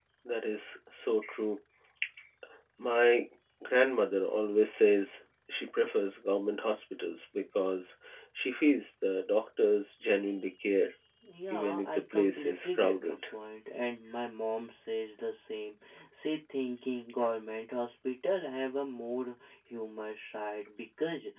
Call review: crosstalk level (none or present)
present